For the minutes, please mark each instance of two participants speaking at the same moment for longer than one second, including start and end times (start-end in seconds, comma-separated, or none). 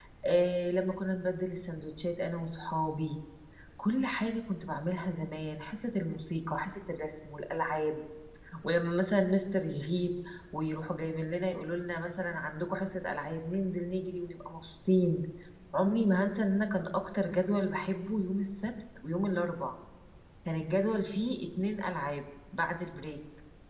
none